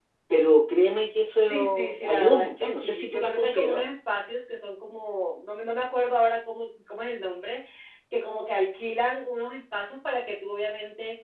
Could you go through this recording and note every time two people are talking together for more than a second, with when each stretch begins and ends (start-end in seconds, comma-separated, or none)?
1.5-3.8